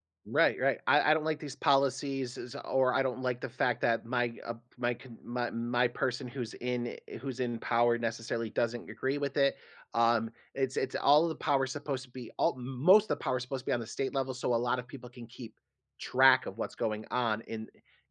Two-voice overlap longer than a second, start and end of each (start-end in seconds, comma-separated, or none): none